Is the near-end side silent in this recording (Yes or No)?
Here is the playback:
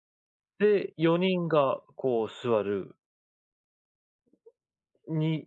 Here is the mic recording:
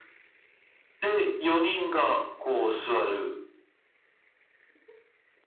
Yes